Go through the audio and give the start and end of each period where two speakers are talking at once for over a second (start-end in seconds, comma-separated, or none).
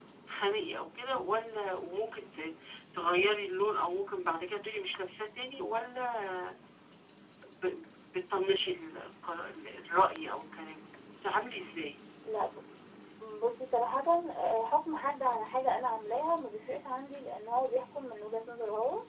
none